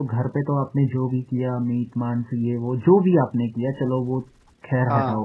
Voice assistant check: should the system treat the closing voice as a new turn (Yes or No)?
No